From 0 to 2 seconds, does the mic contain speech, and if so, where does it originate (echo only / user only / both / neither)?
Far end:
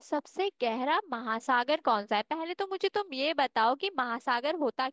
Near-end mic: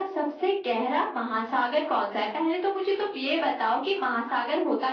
echo only